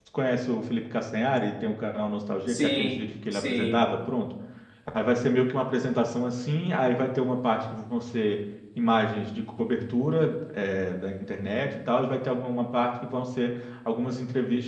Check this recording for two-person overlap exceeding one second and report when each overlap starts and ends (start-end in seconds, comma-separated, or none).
2.5-3.9